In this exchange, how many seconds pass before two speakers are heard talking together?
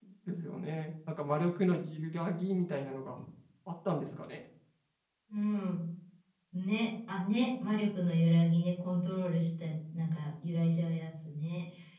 none

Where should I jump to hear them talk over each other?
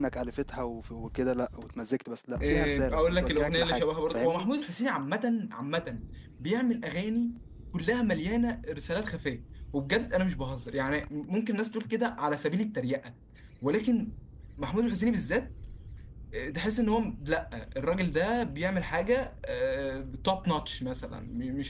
2.4 s

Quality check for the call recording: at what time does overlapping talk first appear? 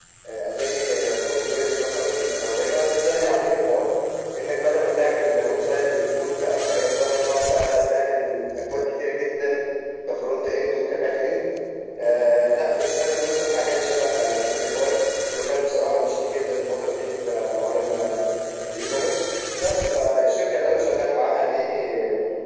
none

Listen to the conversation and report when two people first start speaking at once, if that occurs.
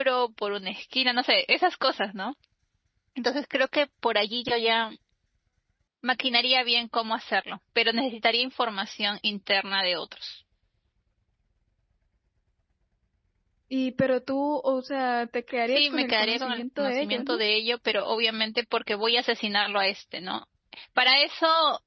15.7 s

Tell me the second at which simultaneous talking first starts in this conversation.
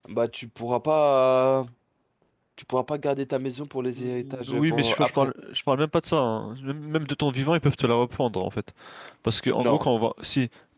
4.0 s

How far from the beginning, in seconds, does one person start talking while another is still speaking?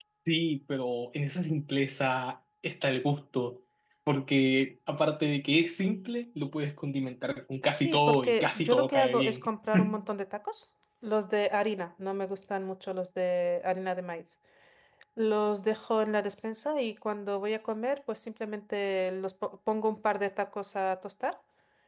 7.6 s

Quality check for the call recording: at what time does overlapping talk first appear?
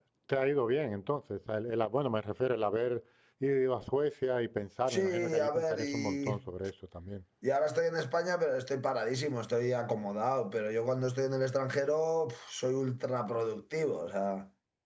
4.9 s

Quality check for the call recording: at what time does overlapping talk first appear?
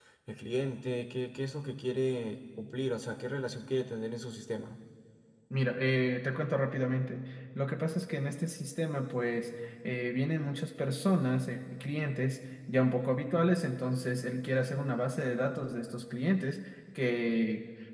none

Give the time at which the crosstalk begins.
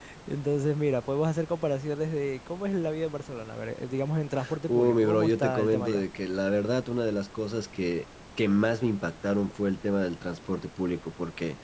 4.7 s

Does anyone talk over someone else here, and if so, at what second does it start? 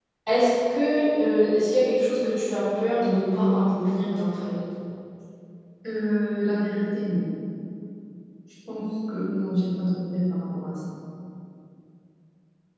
none

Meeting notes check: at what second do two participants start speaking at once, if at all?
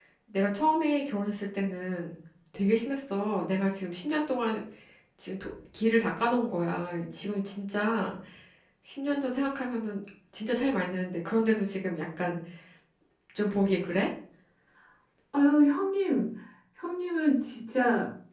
none

